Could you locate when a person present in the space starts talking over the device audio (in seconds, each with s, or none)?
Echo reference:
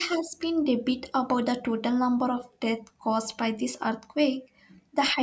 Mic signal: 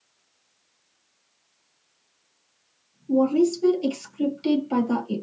3.1 s